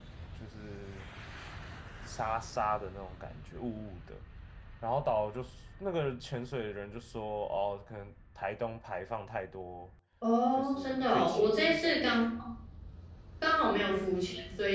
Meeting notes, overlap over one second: present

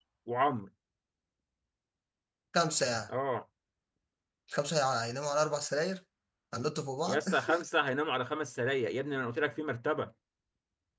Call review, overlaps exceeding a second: none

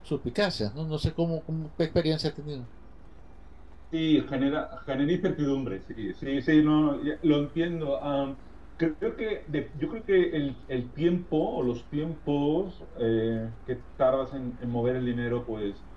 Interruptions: none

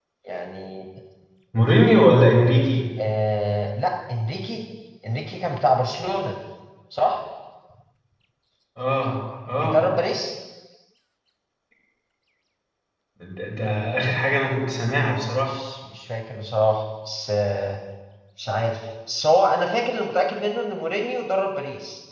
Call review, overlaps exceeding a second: none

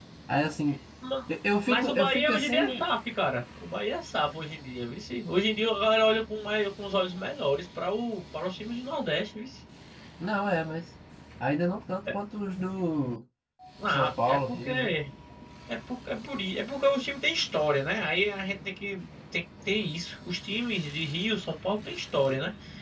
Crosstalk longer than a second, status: present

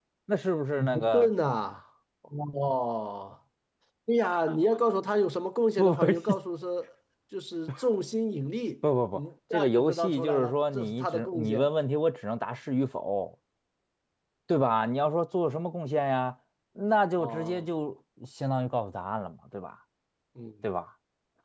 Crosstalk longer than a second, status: present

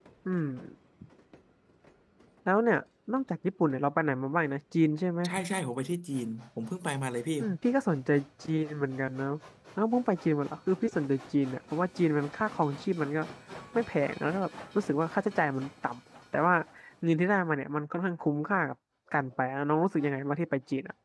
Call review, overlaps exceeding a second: none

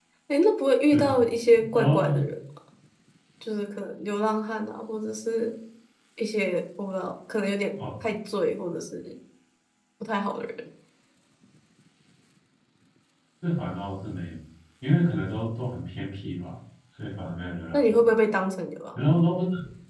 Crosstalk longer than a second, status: none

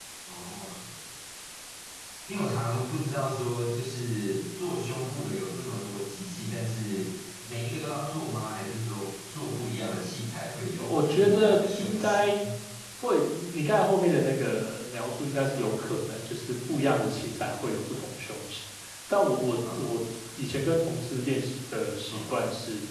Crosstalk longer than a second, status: present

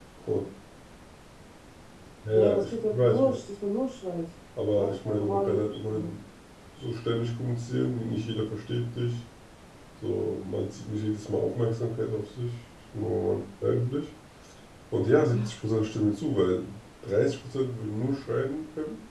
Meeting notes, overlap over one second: present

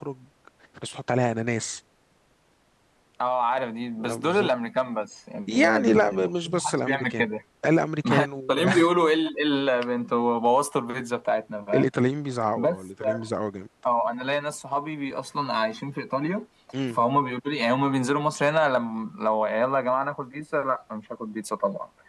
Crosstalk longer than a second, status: present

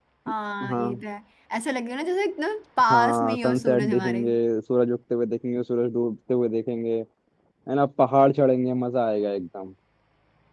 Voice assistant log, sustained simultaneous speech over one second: present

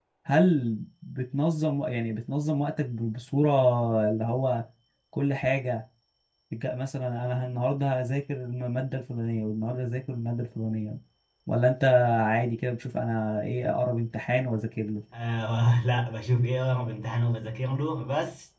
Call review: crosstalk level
none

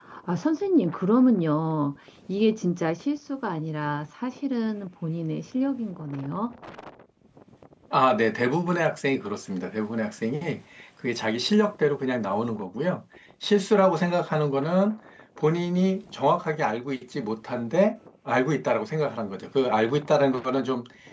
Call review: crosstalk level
none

